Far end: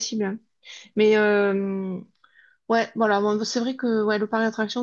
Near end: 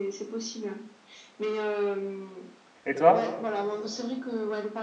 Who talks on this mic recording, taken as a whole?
both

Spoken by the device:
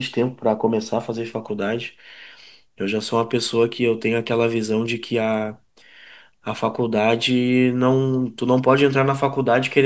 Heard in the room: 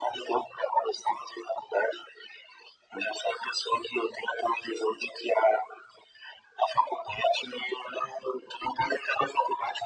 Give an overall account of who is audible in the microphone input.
echo only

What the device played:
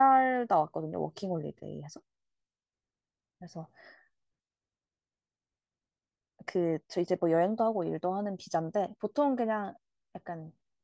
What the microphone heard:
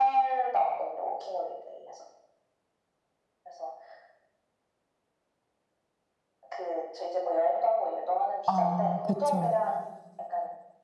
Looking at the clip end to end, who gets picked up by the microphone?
both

